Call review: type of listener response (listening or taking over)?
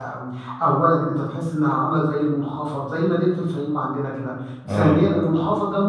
listening